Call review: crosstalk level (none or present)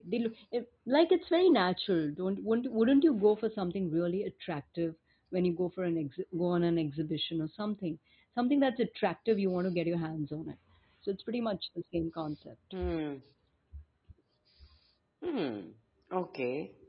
none